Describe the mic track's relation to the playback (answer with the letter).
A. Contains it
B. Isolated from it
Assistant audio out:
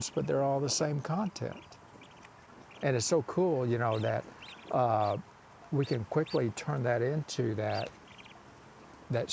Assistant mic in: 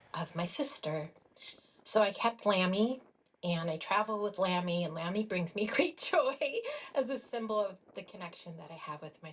B